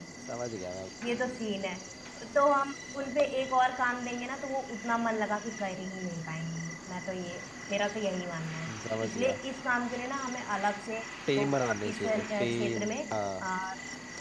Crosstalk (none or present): present